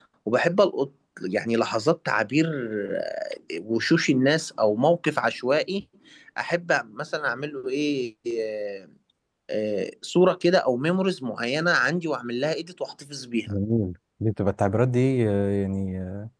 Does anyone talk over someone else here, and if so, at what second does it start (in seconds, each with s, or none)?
none